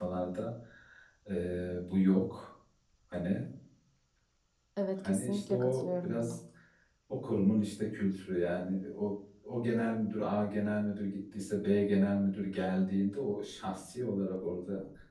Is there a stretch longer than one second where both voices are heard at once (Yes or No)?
Yes